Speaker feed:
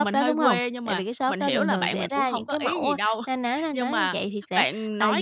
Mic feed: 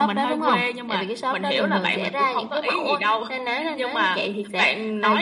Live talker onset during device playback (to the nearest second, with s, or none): none